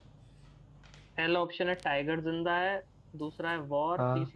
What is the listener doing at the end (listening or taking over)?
listening